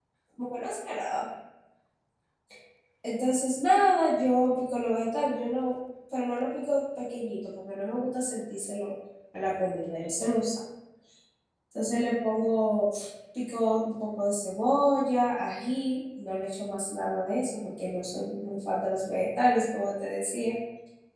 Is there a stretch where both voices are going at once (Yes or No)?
No